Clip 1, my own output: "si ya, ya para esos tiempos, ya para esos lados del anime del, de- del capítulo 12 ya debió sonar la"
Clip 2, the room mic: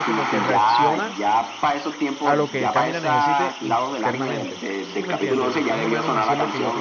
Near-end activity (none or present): present